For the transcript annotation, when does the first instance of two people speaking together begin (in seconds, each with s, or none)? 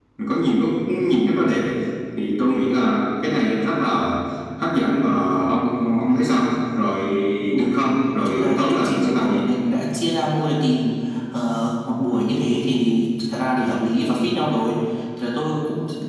8.2 s